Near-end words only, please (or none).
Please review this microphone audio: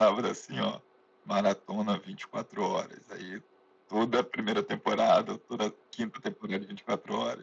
none